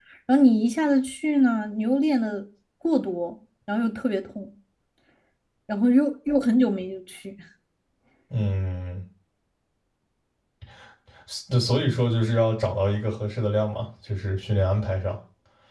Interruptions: none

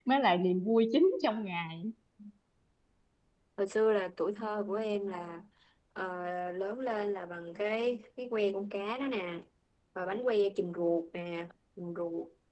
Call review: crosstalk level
none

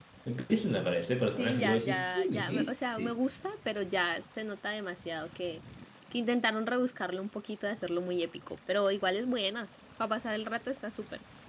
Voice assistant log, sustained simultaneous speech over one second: present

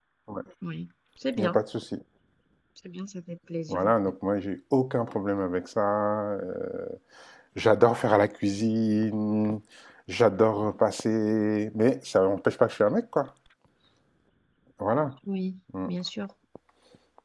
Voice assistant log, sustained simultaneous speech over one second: none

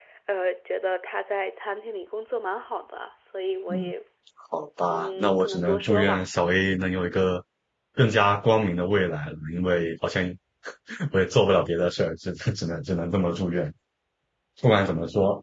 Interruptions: present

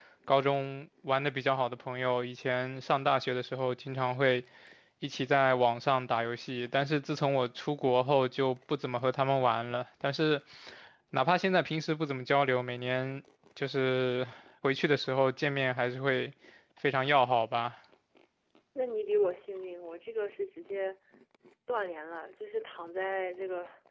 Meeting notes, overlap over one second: none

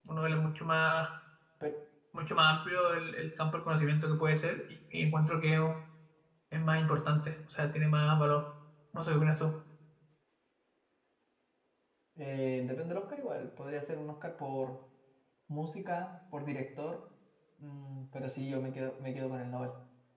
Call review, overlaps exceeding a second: none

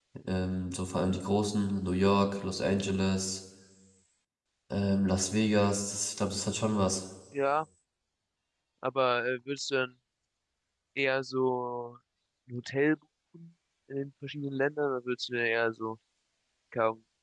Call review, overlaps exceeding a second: none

